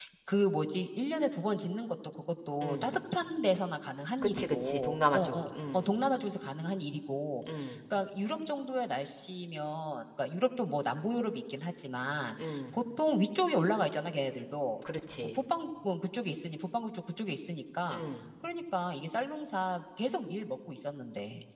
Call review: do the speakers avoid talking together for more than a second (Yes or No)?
No